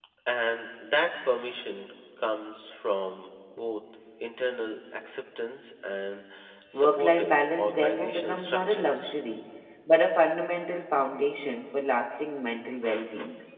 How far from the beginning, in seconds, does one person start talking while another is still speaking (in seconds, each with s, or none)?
6.7 s